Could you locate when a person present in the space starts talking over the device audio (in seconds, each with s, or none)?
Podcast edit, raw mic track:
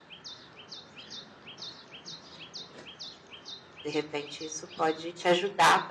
3.8 s